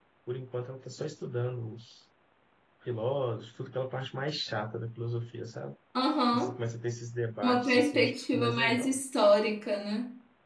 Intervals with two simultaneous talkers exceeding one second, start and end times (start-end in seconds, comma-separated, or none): 7.4-9.0